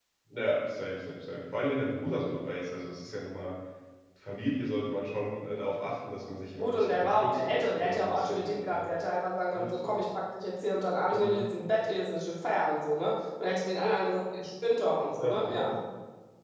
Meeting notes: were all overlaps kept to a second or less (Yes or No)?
No